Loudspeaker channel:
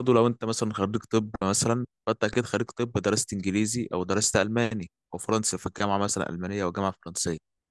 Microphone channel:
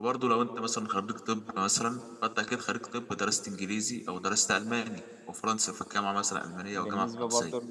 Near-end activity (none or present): present